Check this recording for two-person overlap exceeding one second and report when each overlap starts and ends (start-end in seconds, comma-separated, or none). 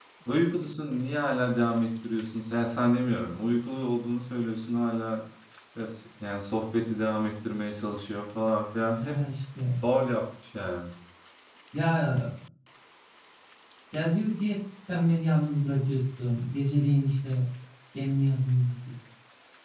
none